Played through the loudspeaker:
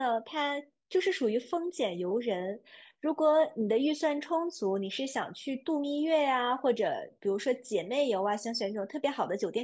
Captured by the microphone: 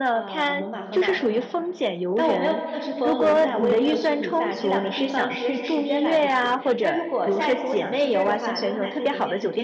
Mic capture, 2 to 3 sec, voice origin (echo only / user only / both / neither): both